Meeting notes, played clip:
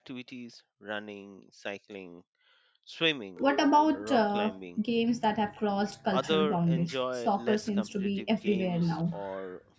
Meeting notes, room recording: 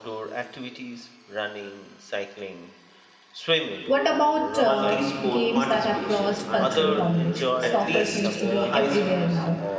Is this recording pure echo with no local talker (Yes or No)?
No